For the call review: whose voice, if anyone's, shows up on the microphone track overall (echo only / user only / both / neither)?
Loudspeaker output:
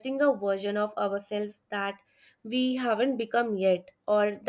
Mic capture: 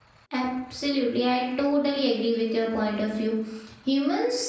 user only